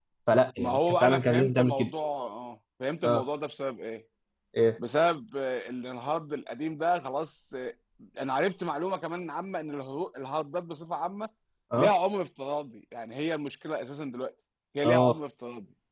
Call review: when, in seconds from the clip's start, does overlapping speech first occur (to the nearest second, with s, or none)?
1 s